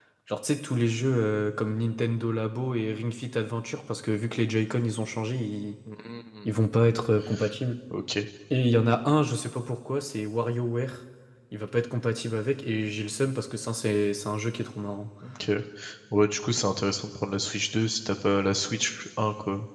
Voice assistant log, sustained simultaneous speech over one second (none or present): none